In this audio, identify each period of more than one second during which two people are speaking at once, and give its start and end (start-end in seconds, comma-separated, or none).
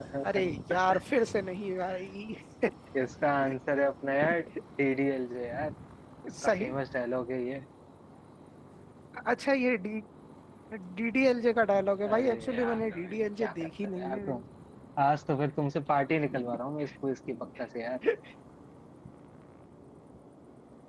12.1-14.4